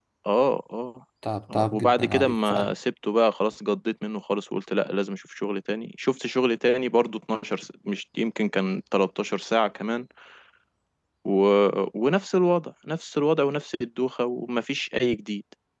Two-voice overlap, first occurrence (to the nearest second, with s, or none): 2 s